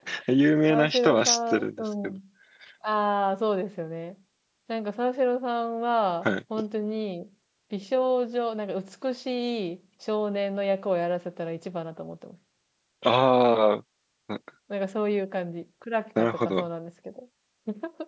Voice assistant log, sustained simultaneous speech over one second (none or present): present